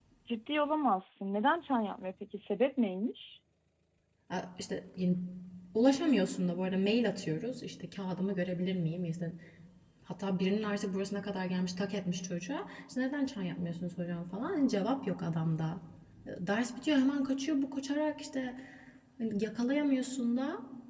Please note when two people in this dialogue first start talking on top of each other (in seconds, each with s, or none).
none